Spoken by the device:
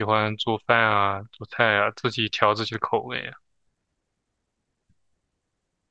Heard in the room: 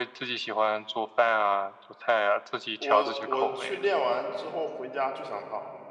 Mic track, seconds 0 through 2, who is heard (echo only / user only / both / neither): echo only